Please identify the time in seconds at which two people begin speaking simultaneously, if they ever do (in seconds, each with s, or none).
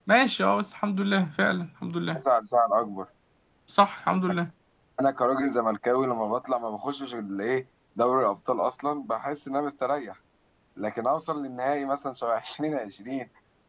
none